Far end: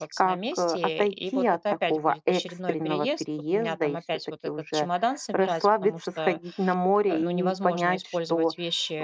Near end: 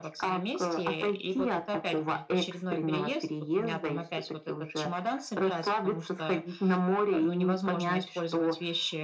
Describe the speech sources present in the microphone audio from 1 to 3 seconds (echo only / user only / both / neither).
echo only